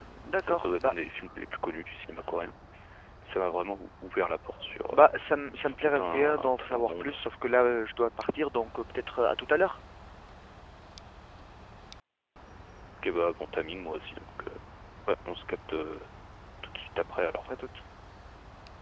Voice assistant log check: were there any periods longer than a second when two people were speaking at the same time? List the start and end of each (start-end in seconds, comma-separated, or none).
5.7-7.2